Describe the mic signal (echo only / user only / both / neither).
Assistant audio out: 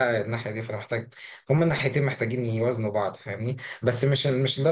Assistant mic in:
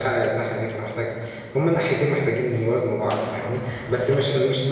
echo only